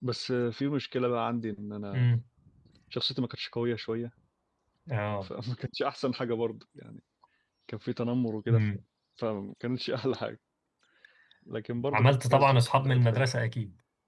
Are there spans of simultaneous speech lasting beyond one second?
Yes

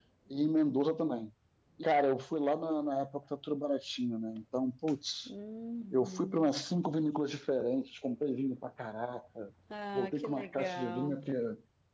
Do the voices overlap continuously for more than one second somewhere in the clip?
Yes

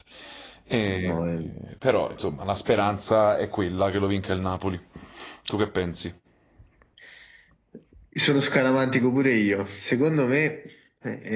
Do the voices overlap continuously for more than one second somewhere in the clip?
No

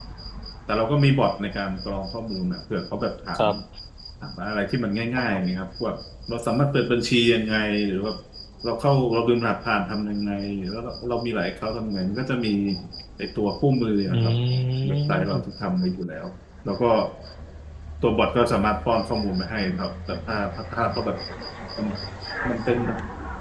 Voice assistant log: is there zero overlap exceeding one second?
No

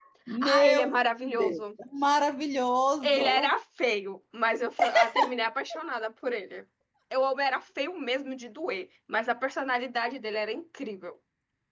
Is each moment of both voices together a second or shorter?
No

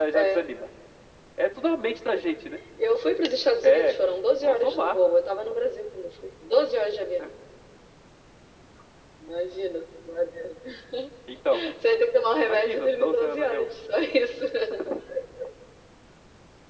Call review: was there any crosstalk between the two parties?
Yes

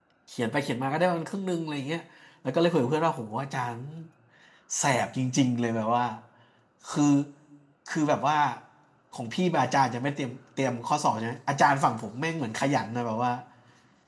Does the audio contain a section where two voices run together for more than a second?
No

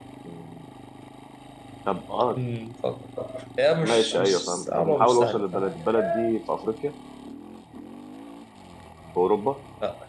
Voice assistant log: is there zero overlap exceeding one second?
No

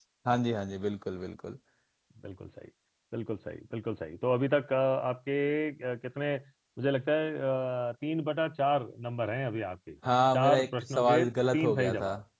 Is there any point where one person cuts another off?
Yes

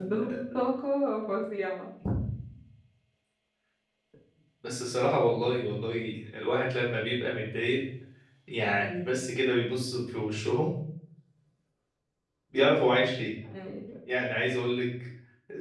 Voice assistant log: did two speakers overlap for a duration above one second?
No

